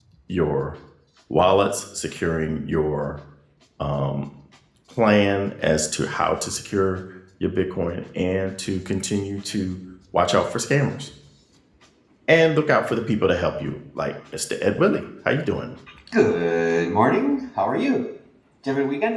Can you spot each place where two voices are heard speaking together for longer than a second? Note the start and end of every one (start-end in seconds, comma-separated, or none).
none